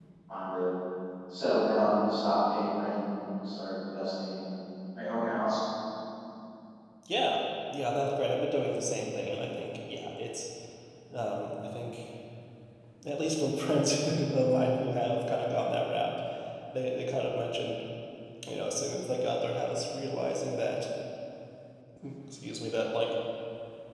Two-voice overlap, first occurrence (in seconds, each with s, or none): none